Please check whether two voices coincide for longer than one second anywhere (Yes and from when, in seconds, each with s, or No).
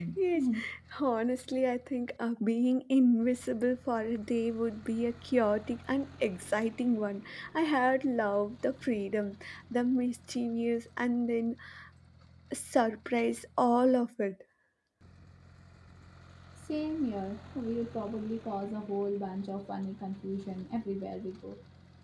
No